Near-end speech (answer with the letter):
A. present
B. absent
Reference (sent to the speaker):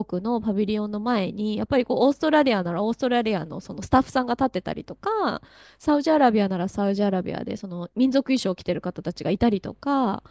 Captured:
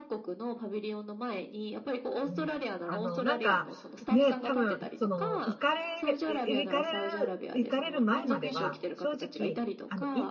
A